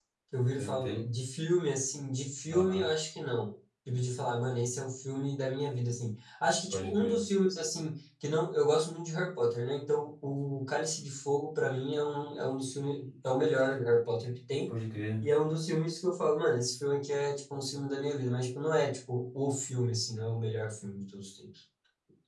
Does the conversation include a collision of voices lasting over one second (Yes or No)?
No